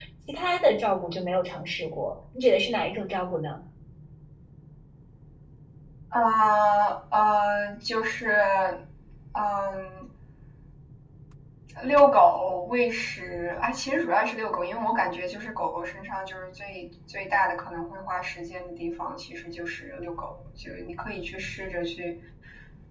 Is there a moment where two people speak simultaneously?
No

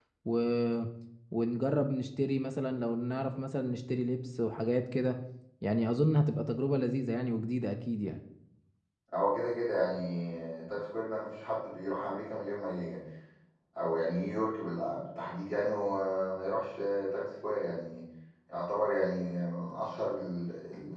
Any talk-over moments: No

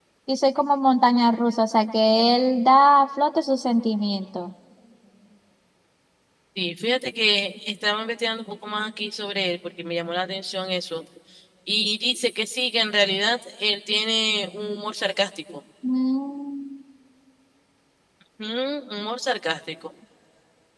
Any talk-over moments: No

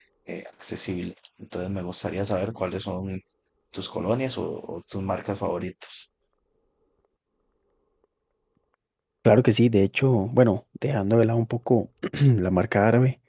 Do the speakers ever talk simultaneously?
No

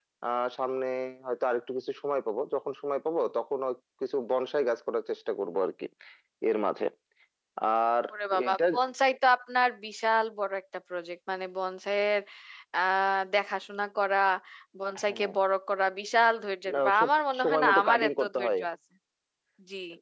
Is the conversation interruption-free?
No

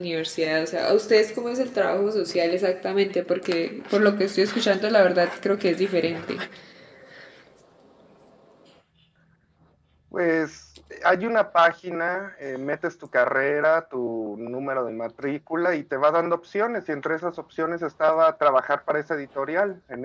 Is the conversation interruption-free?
Yes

